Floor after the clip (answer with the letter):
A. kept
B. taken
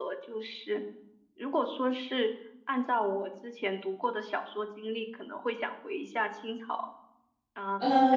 B